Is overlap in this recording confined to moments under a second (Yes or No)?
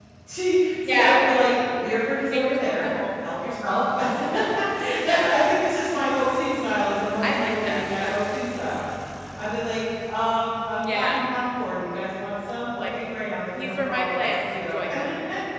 No